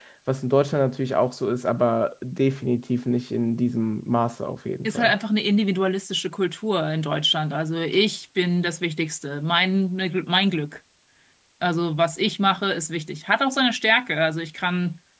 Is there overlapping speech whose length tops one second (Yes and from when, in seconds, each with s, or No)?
No